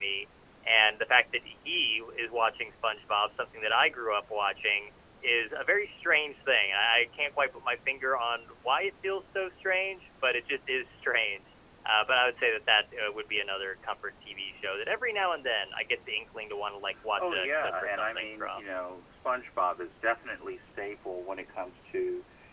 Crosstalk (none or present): present